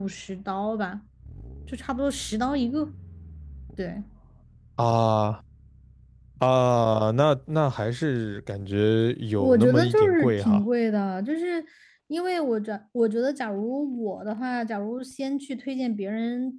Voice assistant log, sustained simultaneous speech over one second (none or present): present